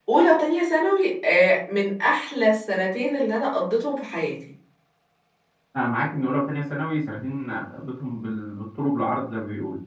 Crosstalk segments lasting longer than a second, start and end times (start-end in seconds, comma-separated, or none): none